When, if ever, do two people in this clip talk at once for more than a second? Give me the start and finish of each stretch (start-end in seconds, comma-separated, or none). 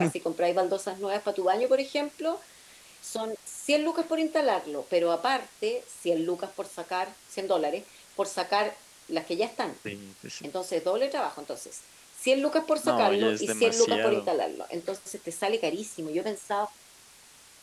12.8-14.3